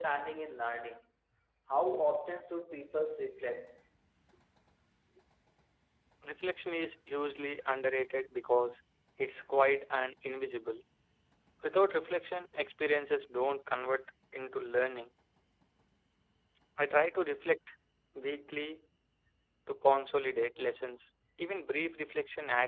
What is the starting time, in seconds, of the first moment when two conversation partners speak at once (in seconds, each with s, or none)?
none